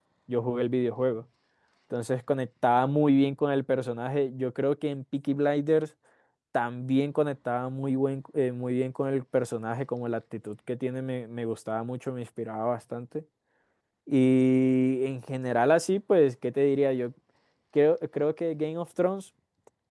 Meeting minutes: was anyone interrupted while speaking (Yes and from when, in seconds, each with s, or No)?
No